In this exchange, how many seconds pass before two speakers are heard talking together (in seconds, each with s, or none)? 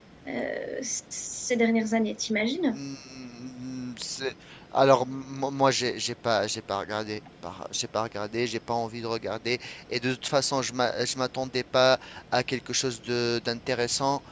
none